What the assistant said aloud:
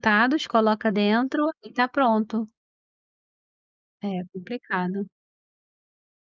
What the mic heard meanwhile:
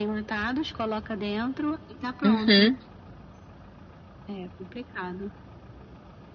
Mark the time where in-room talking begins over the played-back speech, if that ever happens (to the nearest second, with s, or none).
2 s